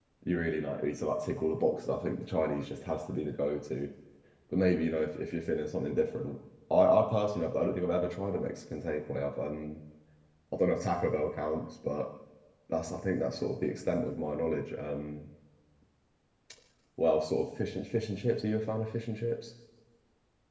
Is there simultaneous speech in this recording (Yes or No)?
No